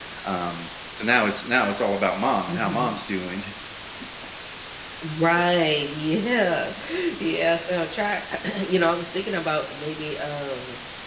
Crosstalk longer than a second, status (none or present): none